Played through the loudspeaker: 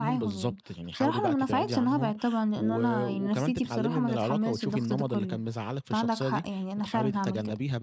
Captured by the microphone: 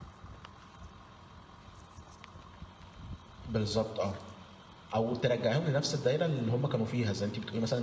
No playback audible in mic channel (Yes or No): Yes